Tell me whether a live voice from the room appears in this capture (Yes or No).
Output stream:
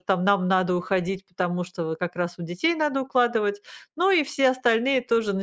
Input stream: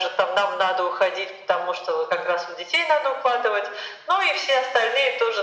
No